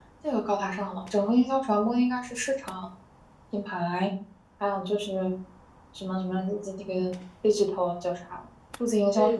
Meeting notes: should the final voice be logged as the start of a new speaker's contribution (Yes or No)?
Yes